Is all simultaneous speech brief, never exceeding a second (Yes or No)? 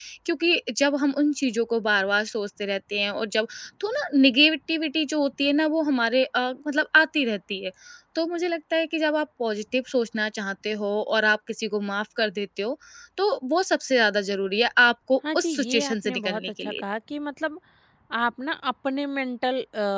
No